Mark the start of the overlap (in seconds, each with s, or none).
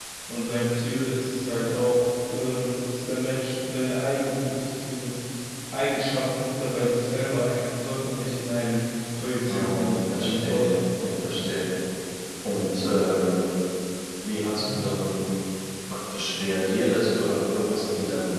9.5 s